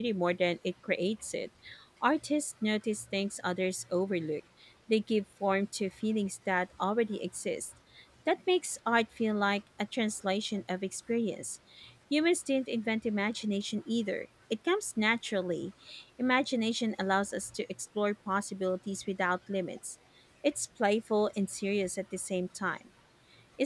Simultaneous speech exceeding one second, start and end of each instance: none

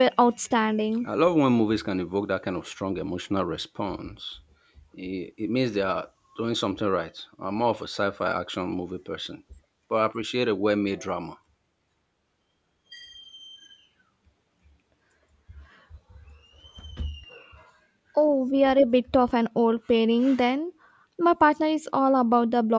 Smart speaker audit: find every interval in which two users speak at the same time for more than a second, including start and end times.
none

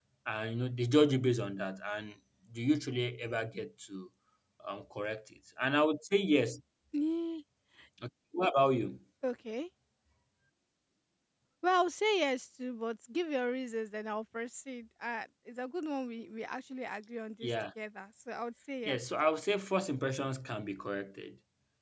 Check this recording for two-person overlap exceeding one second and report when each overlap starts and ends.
none

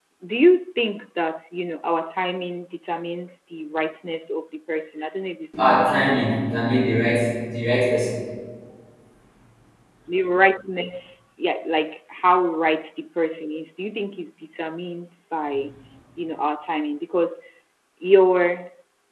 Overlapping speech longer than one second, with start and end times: 5.6-6.8

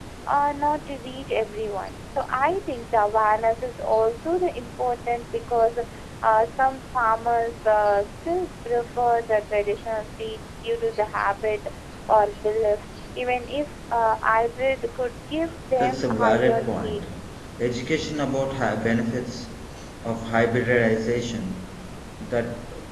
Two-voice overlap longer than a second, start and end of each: 15.7-17.0

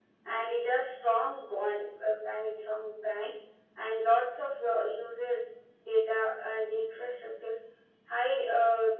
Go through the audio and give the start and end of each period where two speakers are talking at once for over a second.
none

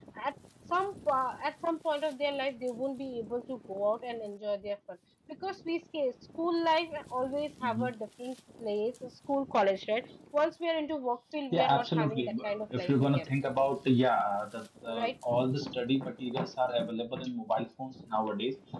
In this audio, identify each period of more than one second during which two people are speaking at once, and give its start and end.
11.5-13.3

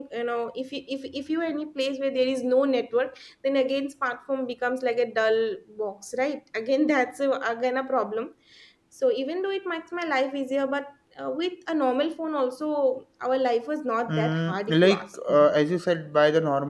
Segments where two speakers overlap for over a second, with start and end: 14.1-15.4

